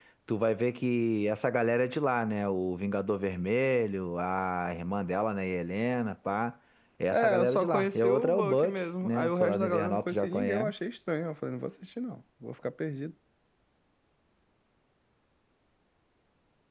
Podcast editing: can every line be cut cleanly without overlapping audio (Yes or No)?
No